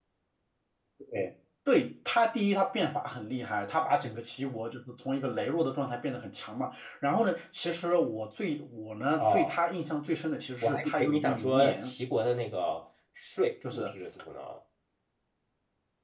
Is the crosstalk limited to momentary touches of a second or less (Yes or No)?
No